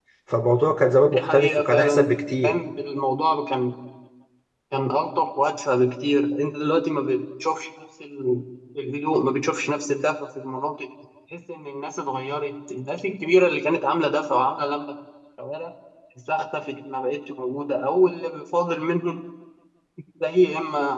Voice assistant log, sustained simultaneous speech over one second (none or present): present